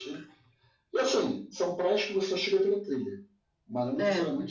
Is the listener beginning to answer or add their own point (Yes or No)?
No